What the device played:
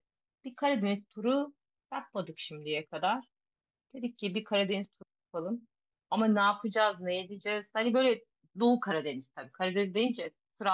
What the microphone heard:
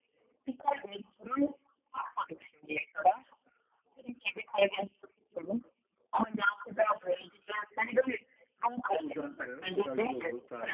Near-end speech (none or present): present